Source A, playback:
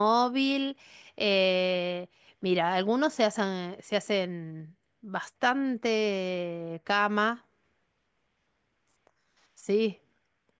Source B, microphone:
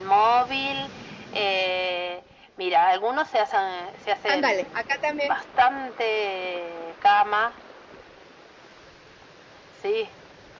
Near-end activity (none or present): present